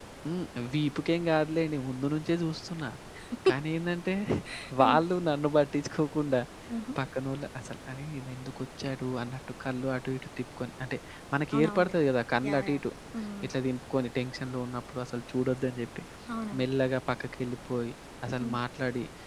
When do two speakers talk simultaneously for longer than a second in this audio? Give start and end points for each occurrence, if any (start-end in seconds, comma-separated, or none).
none